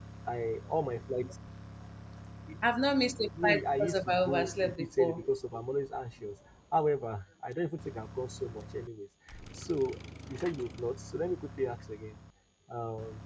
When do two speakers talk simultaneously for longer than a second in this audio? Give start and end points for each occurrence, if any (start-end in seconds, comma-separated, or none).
3.4-5.2